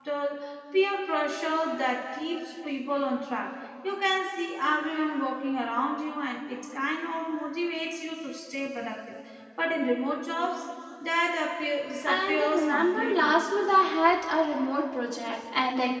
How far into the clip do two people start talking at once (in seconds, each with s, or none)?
12.0 s